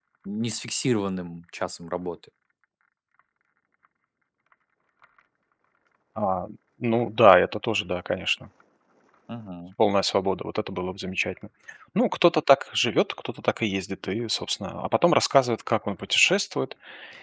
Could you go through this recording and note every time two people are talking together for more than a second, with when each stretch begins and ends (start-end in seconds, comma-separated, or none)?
none